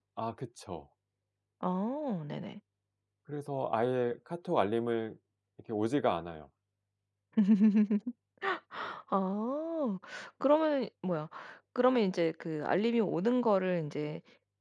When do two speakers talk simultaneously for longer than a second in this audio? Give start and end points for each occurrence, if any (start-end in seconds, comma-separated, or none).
none